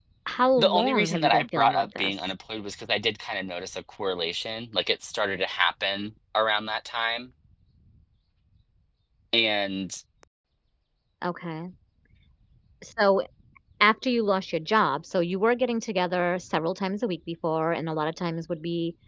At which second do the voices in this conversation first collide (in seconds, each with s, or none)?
0.6 s